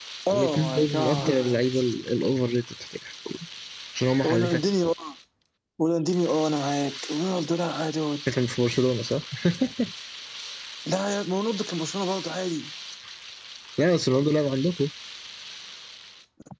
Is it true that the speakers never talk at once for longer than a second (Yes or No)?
No